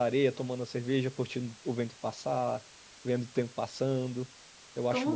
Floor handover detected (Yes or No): Yes